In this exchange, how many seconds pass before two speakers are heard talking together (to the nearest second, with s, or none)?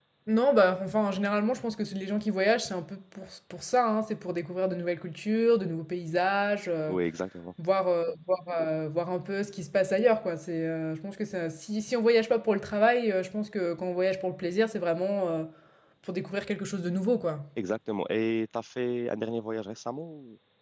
none